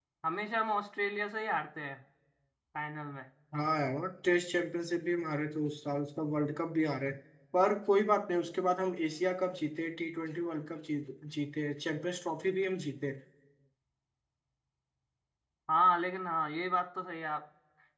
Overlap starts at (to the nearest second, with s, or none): none